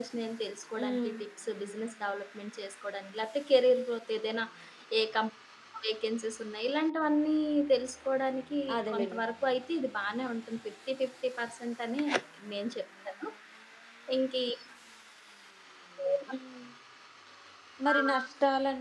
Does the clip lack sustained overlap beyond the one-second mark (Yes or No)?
Yes